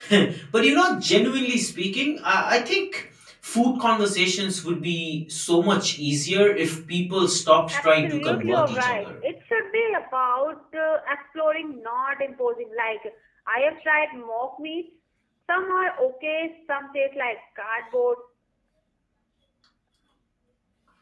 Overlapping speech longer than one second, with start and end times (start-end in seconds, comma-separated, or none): 7.8-9.1